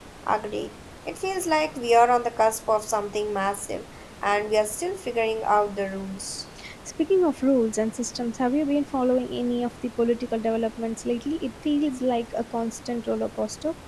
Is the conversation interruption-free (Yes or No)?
Yes